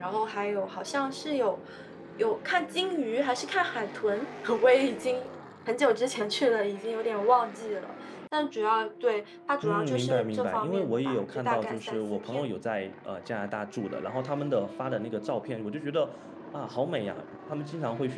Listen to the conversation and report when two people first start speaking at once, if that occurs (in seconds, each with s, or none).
9.6 s